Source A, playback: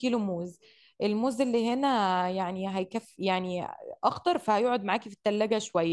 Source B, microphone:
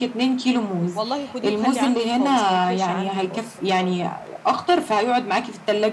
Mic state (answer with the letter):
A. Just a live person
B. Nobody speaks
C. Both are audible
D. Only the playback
C